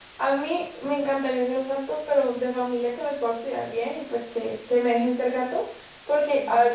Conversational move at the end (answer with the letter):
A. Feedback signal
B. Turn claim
A